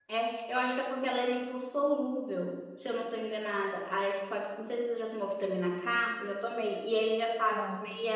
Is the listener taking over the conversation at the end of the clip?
No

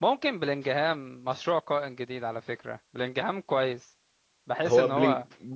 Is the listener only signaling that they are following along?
No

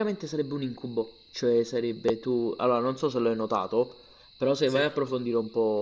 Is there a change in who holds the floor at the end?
No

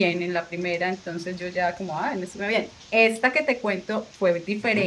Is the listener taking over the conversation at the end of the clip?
No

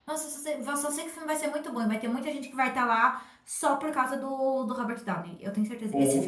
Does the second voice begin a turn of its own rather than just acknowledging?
No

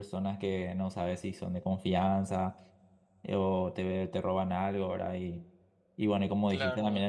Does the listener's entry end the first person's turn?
No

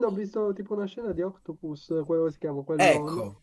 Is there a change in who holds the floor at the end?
Yes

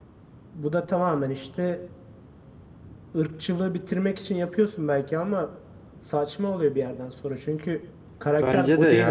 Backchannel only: No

